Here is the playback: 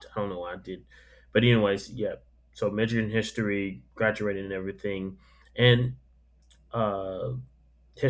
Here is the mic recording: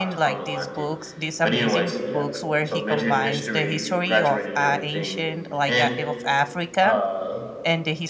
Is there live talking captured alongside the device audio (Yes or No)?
Yes